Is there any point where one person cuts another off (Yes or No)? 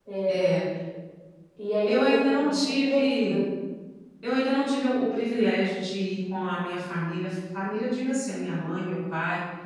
Yes